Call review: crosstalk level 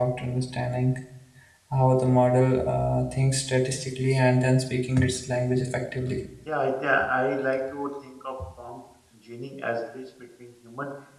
none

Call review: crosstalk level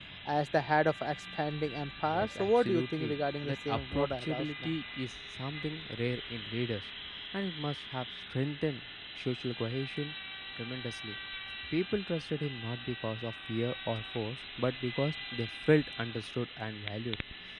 present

